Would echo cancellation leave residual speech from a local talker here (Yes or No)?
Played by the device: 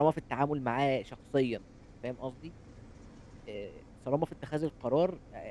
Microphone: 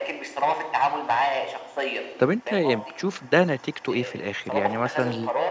Yes